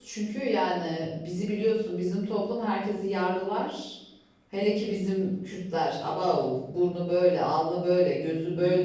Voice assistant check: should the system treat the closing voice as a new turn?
No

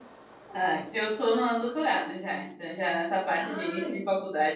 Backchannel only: Yes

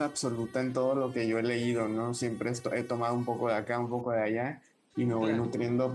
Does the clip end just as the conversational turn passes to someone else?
No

